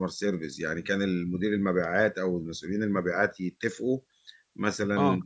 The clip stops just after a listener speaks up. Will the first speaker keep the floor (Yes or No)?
Yes